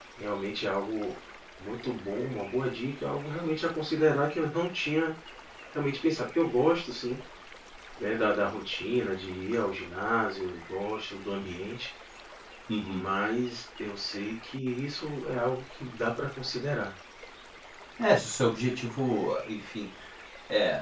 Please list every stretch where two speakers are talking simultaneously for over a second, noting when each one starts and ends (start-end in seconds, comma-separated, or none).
none